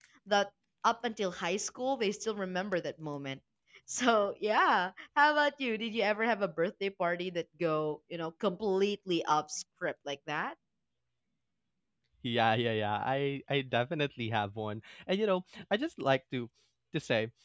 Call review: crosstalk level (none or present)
none